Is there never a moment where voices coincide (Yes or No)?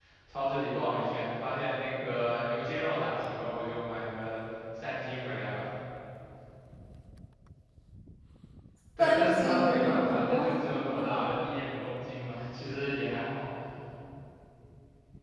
No